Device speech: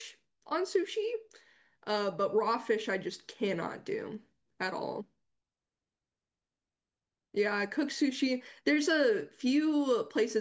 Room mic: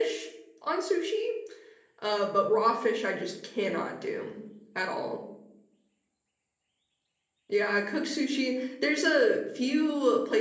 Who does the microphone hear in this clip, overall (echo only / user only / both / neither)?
echo only